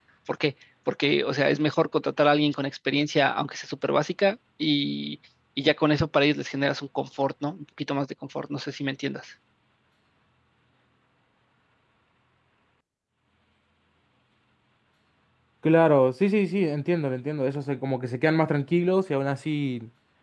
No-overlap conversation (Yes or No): Yes